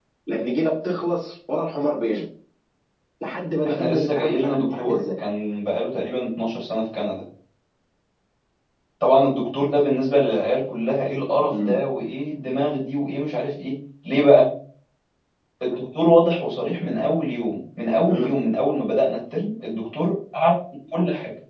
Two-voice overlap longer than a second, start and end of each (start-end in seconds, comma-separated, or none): 3.6-5.0